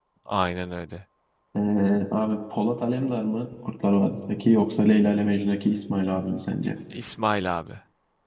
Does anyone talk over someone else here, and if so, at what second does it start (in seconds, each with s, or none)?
none